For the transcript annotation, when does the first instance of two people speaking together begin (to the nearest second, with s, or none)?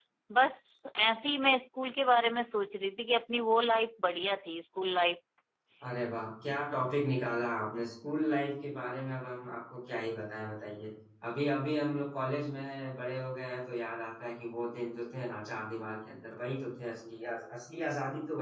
none